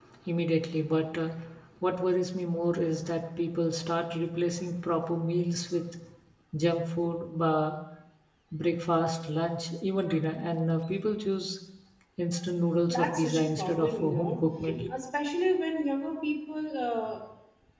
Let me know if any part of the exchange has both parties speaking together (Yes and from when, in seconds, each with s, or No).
Yes, from 12.9 s